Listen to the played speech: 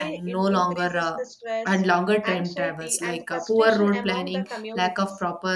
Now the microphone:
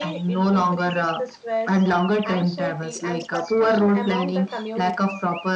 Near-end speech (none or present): none